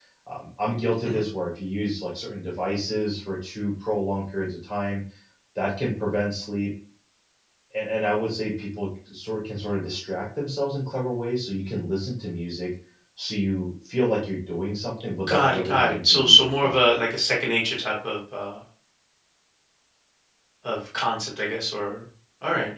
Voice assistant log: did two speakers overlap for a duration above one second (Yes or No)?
Yes